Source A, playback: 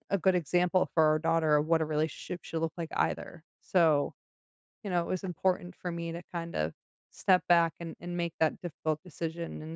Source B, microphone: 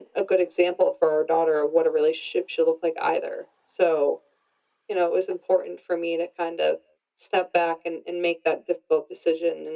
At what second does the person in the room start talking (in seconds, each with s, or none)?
none